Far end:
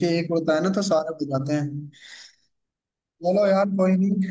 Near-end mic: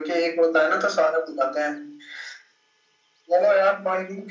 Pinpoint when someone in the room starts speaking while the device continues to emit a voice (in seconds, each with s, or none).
none